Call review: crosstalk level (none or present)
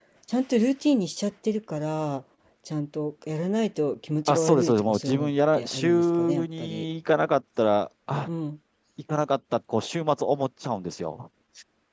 present